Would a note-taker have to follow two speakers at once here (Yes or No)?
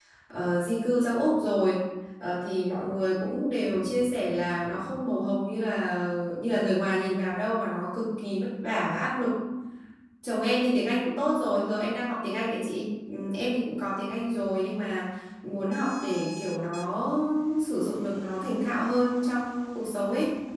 No